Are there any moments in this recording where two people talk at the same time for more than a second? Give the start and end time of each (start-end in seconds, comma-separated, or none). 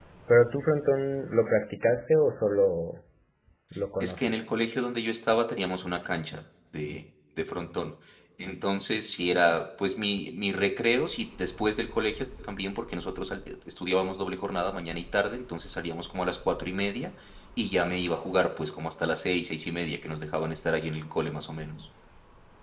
none